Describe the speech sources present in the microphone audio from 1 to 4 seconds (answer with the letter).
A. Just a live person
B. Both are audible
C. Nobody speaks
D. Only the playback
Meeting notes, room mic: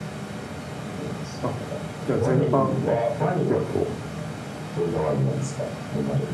B